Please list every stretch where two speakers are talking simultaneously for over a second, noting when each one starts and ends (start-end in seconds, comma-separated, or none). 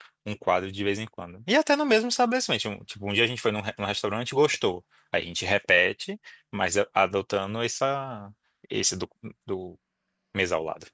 none